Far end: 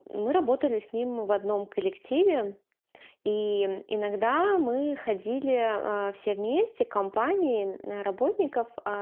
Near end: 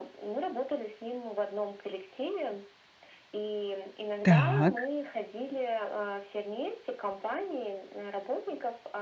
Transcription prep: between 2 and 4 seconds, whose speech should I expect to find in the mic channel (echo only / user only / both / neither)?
echo only